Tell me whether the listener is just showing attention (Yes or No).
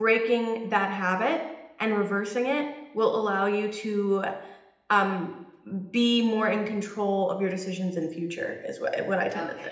No